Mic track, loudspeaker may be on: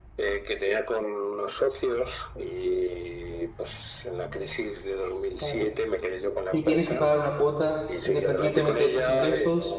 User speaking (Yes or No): Yes